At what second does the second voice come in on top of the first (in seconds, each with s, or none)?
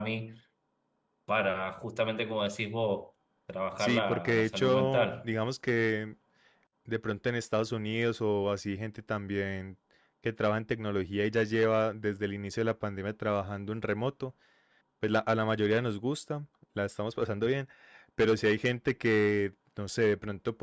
3.8 s